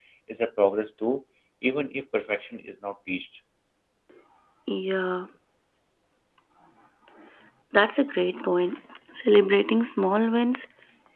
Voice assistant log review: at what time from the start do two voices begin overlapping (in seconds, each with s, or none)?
none